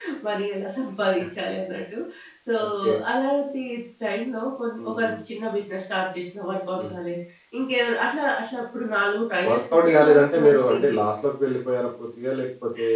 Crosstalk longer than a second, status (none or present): present